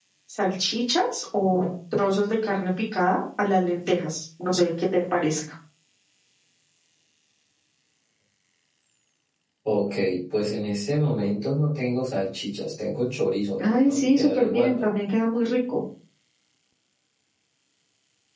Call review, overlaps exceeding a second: present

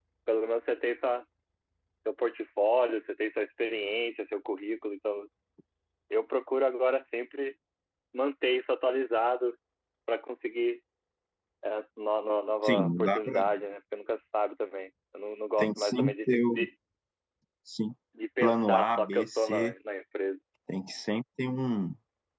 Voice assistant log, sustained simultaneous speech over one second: present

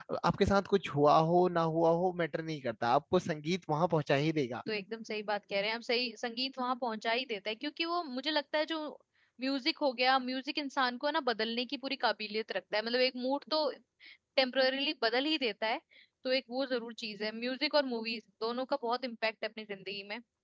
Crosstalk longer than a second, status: none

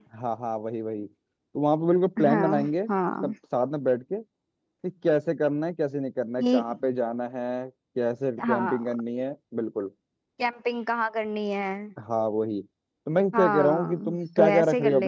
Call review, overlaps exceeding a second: present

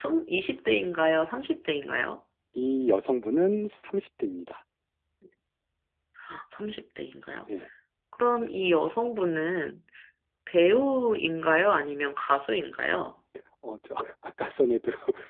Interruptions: none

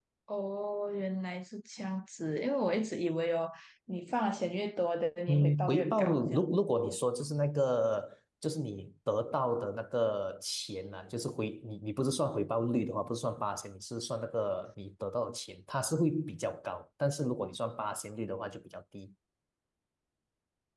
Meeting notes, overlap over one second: present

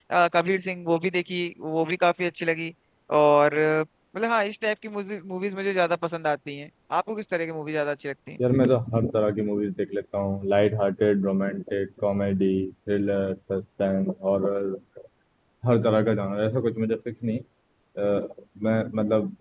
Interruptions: none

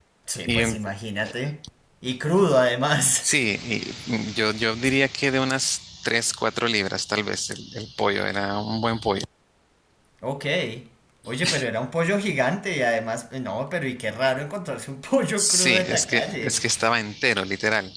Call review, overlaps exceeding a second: present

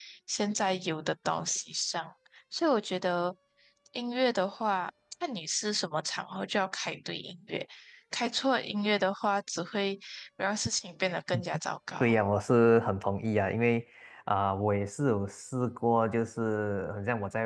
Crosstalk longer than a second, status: none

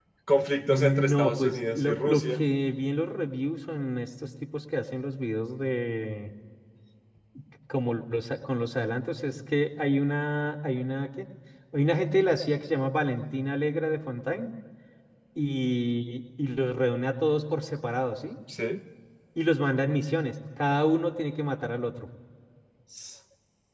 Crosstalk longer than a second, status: present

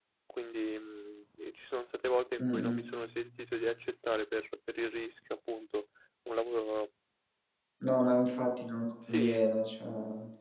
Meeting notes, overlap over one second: none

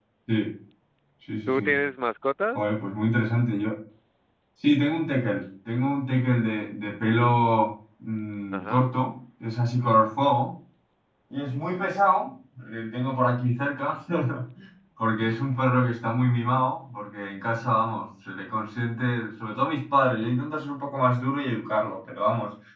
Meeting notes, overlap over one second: none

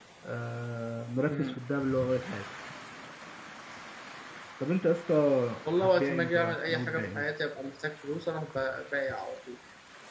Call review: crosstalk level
present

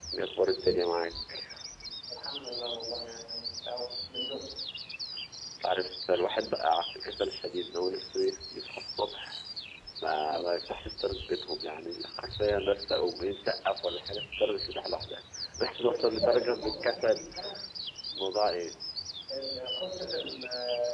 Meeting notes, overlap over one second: present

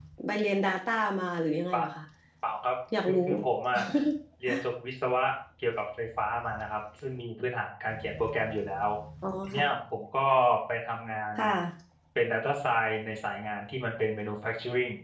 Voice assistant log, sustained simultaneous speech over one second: none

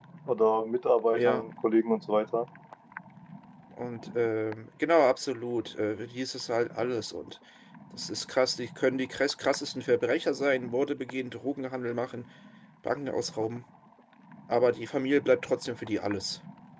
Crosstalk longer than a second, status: none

